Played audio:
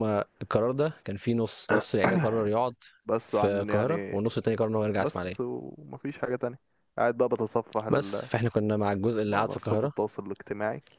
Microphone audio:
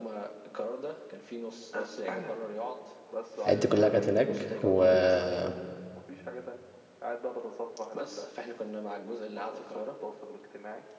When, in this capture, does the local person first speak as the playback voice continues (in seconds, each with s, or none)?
3.5 s